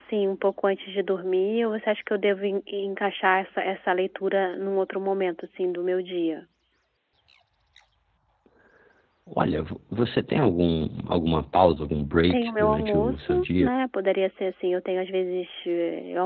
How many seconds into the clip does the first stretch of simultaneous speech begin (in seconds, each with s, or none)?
12.2 s